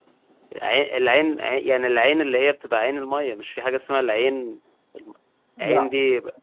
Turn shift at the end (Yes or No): No